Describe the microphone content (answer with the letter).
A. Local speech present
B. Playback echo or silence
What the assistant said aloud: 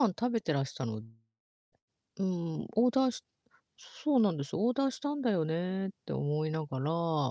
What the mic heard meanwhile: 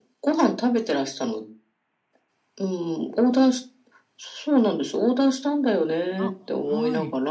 A